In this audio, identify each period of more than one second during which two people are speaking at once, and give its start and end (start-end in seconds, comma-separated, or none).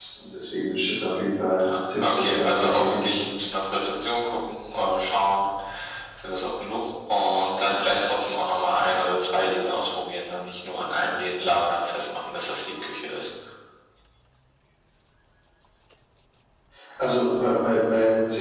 1.6-3.1